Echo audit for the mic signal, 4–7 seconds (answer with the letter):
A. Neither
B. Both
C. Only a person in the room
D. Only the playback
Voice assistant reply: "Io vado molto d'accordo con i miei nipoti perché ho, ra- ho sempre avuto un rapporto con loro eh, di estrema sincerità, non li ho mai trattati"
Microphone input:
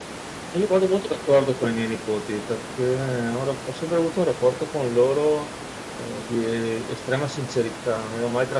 D